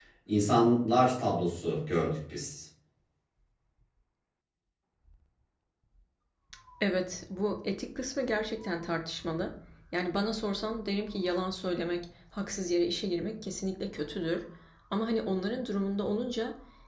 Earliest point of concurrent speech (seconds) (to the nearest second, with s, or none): none